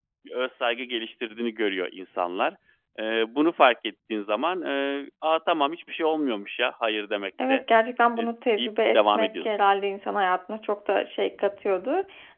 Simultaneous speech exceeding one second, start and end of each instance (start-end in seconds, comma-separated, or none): 8.2-9.6